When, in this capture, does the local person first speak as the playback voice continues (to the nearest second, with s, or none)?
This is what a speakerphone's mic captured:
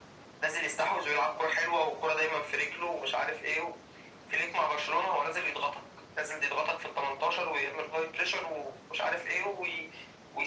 none